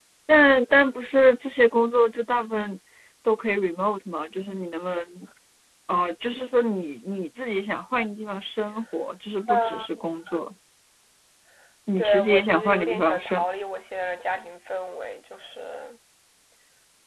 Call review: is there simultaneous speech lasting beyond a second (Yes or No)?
Yes